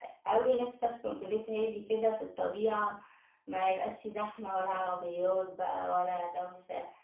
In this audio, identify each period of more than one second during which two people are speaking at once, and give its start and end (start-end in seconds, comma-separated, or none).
none